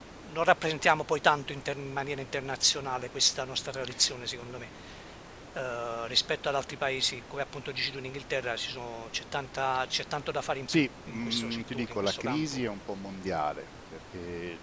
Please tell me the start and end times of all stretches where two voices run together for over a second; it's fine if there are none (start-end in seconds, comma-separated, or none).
10.7-12.6